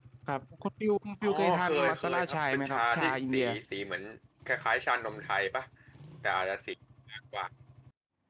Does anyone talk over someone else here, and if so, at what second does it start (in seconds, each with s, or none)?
1.2 s